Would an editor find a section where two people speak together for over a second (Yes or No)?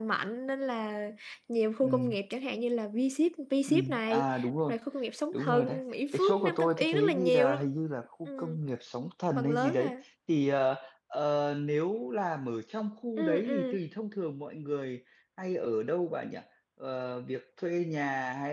Yes